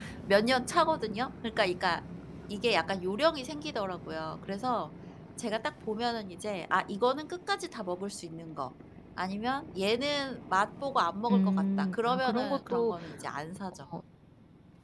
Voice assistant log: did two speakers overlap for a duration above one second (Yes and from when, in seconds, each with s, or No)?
Yes, from 11.3 s